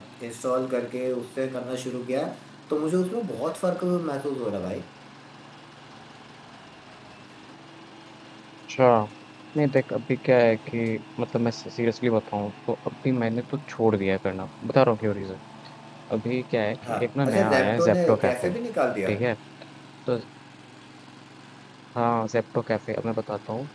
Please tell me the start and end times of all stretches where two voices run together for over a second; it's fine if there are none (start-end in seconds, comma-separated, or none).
16.9-18.5